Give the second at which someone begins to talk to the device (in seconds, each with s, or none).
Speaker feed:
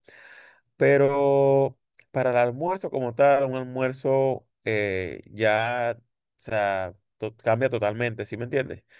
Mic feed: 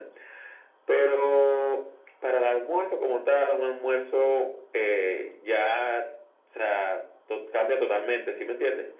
none